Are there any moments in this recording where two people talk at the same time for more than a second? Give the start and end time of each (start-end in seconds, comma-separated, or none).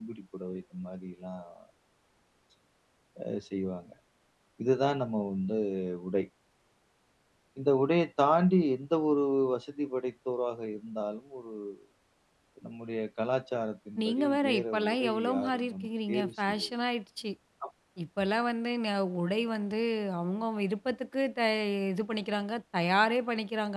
14.0-16.7